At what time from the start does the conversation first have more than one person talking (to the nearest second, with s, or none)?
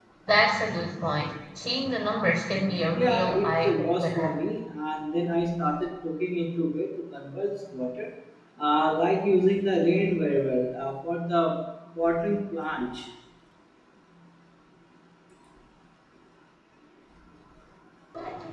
3 s